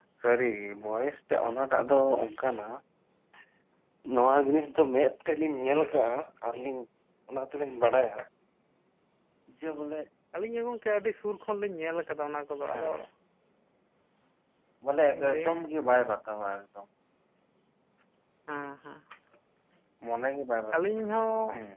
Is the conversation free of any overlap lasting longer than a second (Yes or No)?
Yes